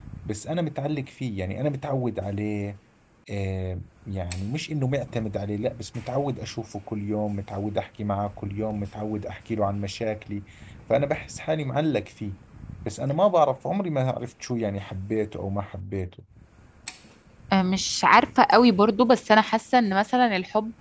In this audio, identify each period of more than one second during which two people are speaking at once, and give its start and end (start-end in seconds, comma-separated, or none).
none